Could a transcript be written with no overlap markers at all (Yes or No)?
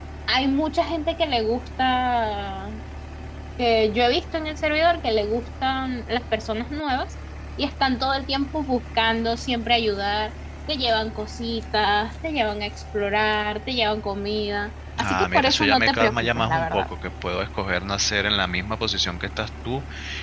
No